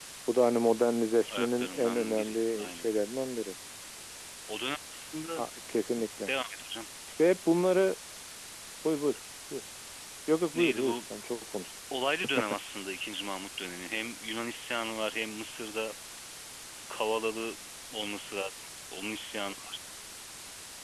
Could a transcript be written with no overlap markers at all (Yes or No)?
No